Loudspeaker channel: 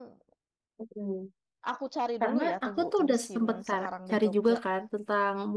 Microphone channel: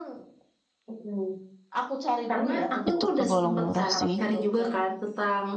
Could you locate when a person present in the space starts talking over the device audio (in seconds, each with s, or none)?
2.9 s